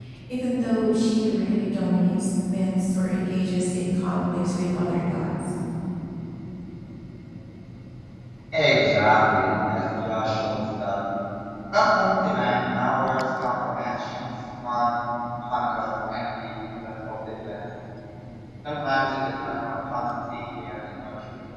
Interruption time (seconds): none

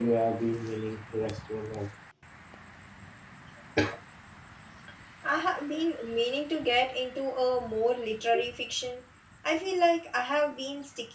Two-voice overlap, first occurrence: none

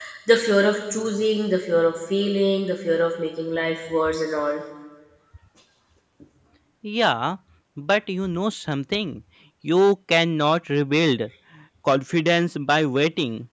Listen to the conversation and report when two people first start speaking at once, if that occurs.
none

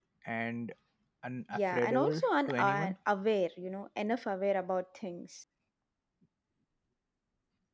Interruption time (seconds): 2 s

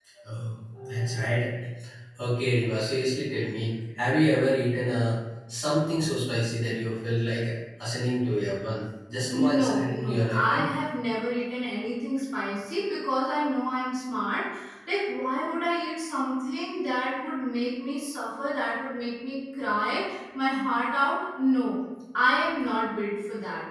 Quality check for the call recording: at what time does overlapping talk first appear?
9 s

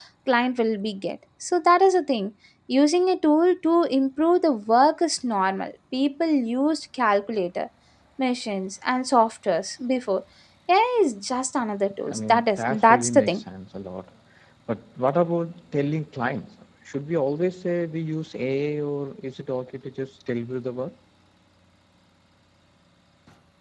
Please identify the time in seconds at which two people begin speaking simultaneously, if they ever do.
12 s

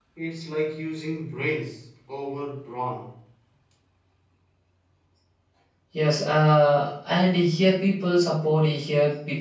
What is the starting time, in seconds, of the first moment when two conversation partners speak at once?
none

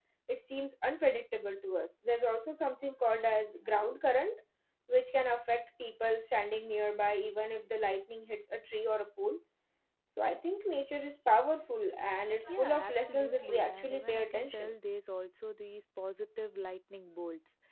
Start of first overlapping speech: 12 s

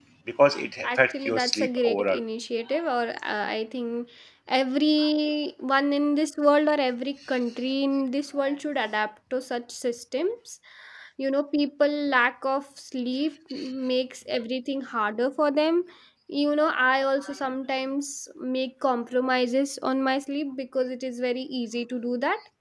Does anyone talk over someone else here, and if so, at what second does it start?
1 s

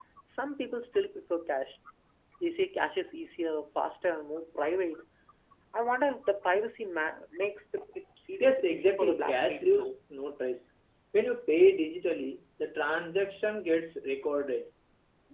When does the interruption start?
8 s

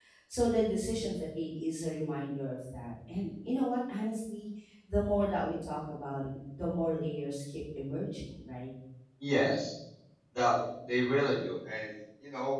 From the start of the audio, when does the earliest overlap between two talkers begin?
none

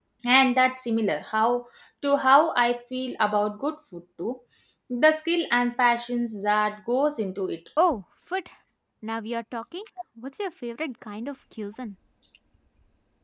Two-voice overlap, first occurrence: none

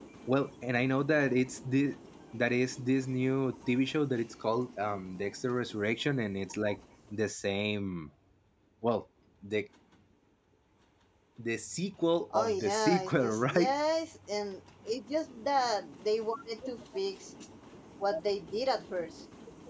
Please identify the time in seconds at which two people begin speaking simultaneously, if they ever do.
12 s

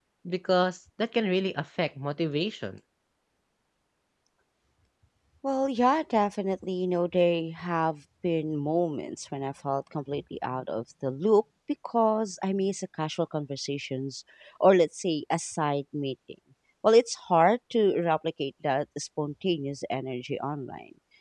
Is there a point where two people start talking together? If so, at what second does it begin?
none

